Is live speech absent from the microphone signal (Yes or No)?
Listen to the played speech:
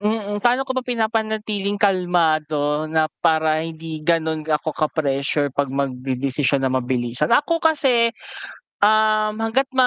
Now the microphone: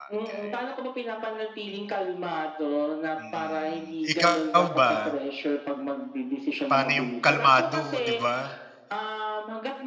No